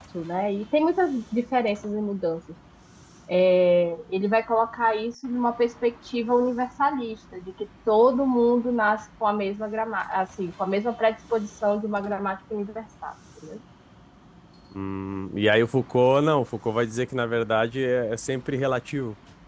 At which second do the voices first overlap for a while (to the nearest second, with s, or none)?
none